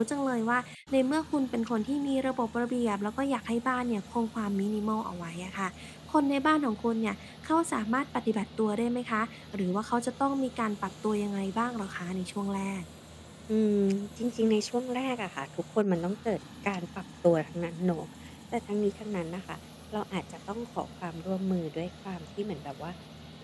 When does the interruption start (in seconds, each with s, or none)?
none